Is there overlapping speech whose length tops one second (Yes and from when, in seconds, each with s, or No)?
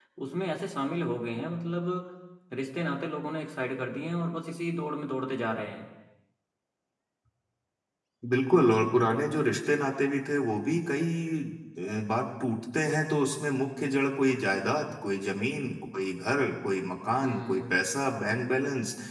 No